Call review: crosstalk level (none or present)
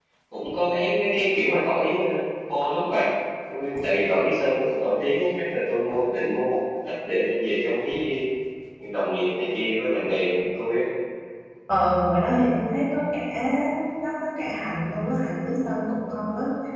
none